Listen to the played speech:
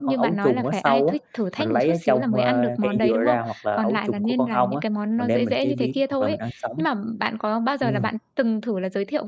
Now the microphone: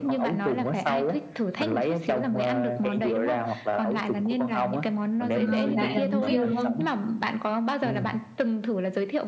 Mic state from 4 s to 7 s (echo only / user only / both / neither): both